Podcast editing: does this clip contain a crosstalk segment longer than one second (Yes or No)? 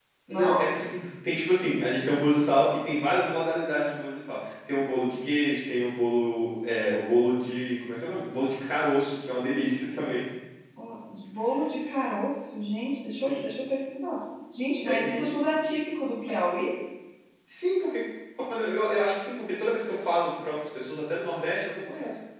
No